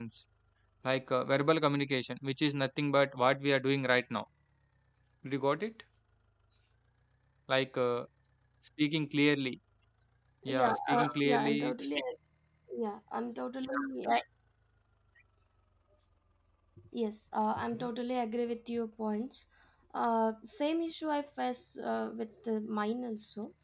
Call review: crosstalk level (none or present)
present